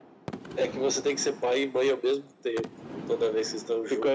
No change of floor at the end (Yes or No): No